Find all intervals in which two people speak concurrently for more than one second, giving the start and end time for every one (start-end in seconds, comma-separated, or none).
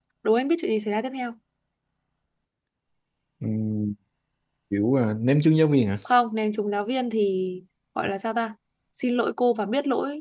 none